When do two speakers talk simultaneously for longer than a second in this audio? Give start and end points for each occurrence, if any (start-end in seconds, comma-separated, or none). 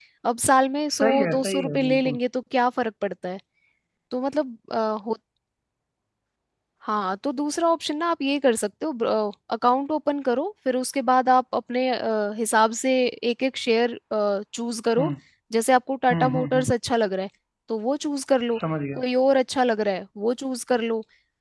1.0-2.2